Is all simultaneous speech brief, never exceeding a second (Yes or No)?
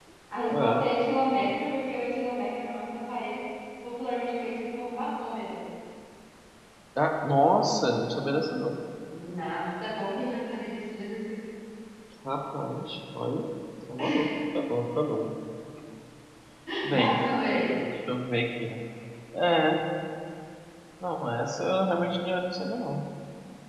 Yes